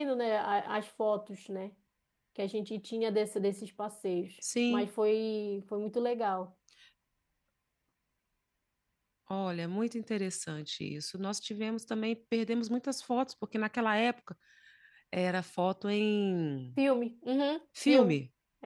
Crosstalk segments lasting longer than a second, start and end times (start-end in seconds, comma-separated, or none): none